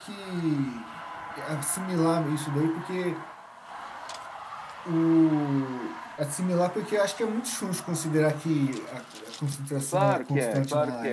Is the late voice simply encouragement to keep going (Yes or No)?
No